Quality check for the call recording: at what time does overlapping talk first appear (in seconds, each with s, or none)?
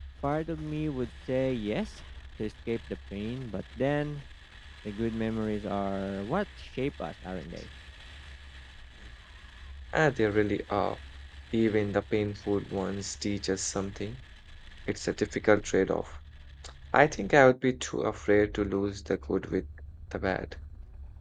none